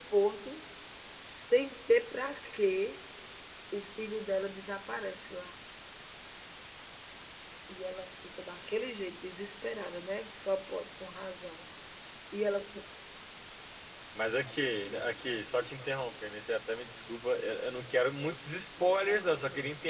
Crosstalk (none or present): none